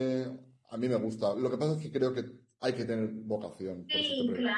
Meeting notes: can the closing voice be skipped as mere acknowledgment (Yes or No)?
No